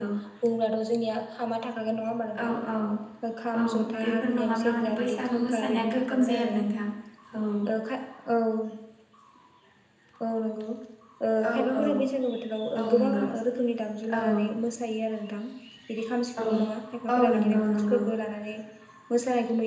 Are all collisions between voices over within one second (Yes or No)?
No